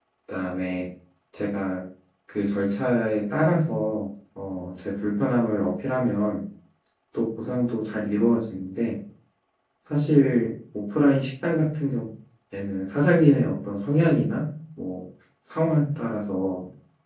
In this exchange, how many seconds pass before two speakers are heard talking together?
none

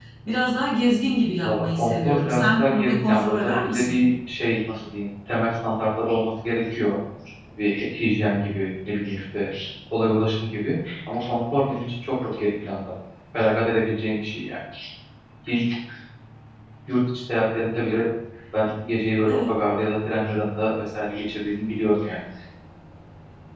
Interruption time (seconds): 1.4 s

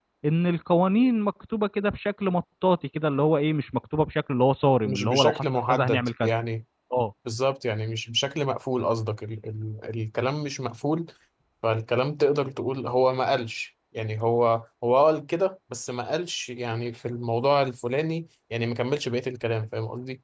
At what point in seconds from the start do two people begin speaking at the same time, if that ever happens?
4.8 s

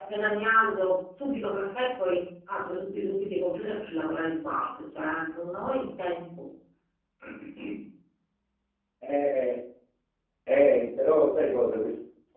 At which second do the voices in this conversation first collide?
none

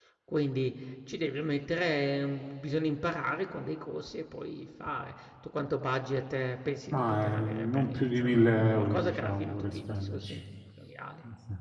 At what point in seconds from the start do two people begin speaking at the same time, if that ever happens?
6.9 s

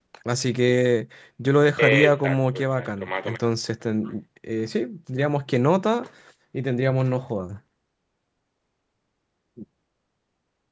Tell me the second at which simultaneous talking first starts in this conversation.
1.8 s

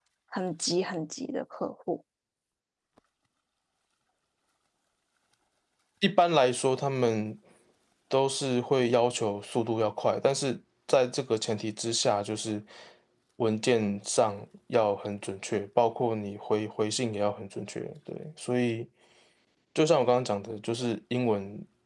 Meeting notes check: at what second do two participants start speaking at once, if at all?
none

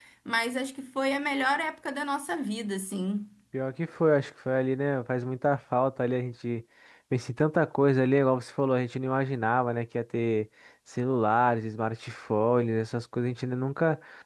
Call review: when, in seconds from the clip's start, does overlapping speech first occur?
none

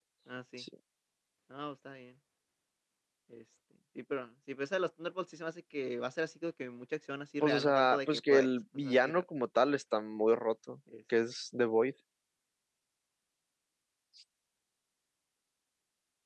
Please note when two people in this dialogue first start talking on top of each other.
7.4 s

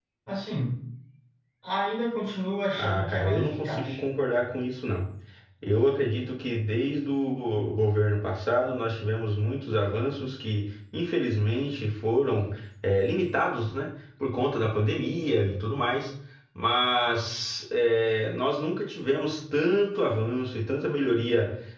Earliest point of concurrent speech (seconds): 2.7 s

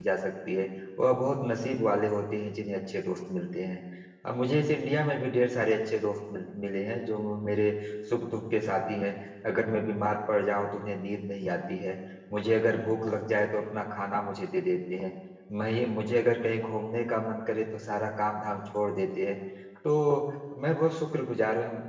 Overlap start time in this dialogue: none

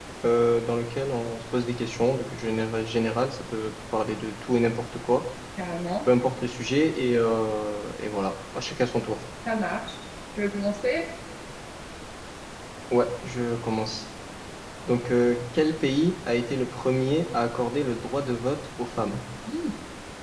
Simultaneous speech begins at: none

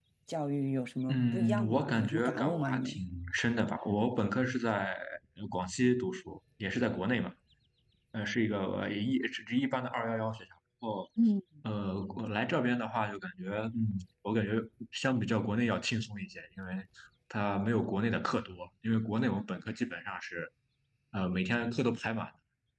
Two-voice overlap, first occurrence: 1.1 s

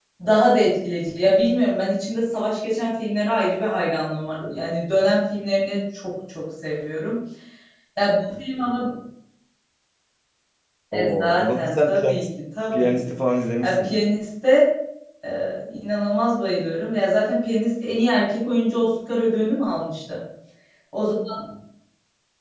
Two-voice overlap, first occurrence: 10.9 s

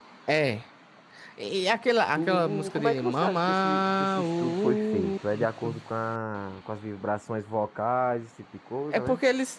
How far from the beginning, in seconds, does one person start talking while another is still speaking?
2.2 s

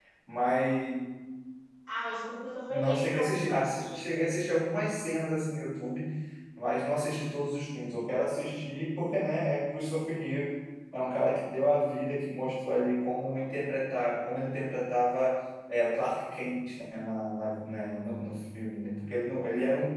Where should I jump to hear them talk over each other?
2.7 s

